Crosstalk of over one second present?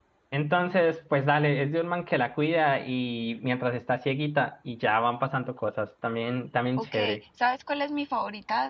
No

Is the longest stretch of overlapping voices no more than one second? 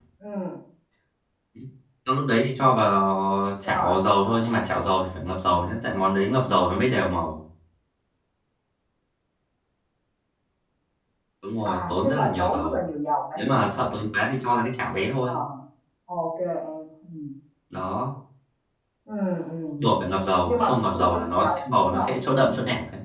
No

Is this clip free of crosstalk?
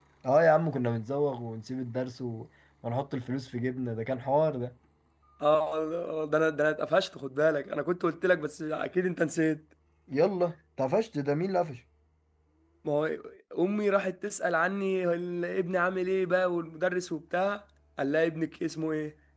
Yes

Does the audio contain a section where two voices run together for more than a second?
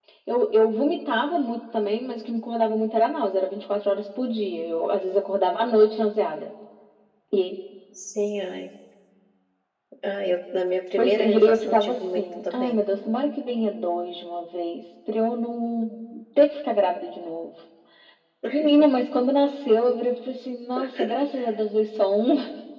Yes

